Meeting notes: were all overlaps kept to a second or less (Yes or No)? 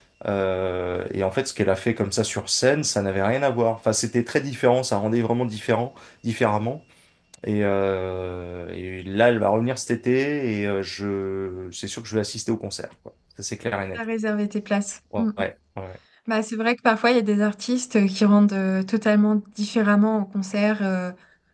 Yes